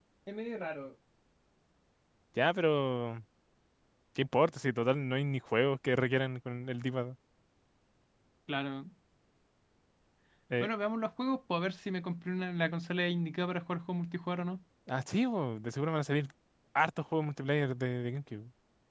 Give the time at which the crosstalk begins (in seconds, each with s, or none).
none